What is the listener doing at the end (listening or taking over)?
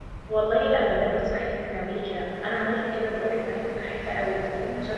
listening